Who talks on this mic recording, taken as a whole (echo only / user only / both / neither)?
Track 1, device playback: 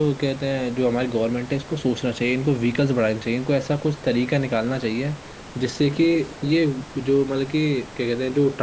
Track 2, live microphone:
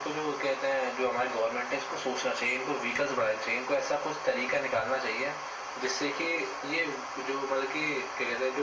echo only